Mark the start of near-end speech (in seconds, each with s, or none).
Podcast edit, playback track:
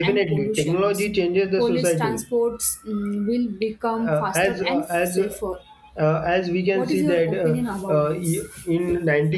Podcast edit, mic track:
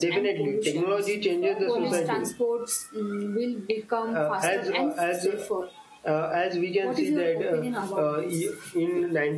1.2 s